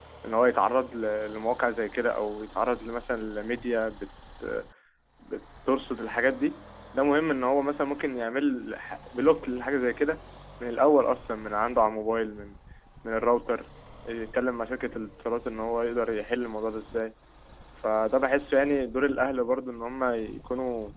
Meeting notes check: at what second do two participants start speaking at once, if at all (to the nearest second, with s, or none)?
none